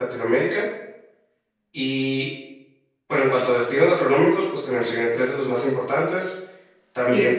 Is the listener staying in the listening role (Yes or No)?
No